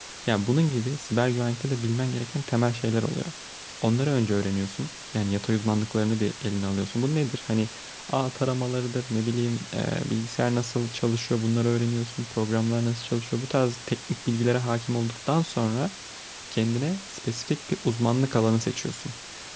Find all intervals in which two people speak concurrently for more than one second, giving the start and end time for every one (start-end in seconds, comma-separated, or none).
none